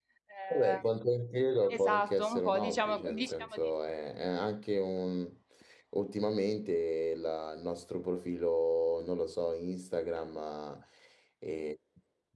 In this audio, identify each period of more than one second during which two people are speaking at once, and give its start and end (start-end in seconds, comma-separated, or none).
1.7-3.6